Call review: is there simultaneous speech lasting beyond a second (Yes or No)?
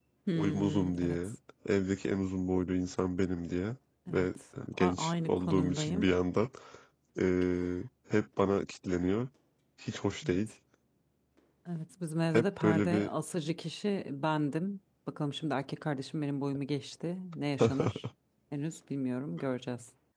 Yes